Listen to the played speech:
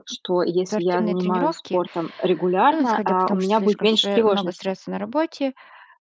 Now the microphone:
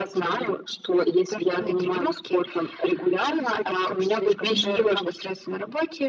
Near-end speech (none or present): present